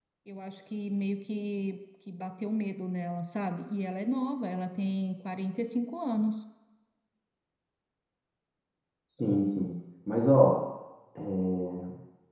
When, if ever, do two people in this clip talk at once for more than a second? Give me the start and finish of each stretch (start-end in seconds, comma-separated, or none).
none